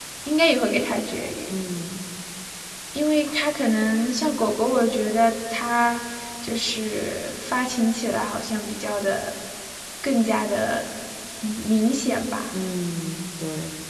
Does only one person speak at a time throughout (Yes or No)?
Yes